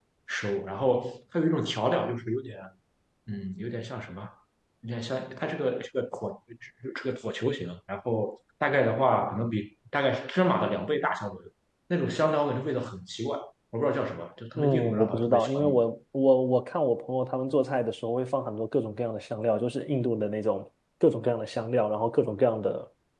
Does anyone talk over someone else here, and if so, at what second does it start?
14.6 s

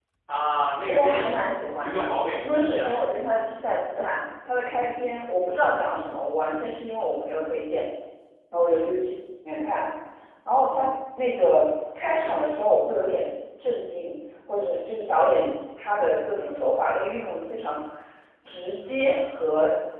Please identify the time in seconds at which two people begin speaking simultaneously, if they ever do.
0.9 s

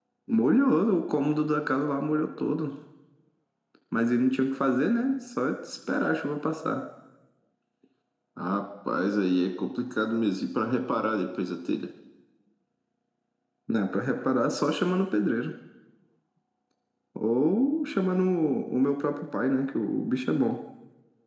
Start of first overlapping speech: none

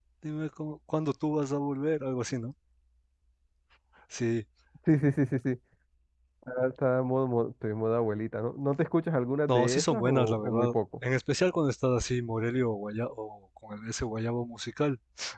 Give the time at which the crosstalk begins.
9.5 s

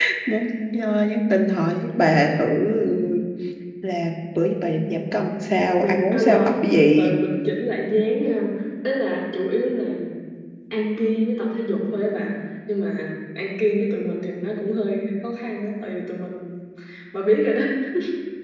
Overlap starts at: 5.8 s

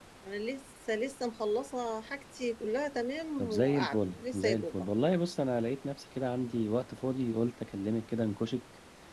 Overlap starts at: 3.4 s

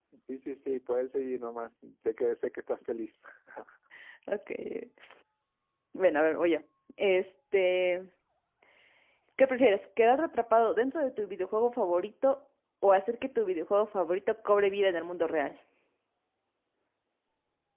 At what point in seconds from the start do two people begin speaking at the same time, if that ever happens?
none

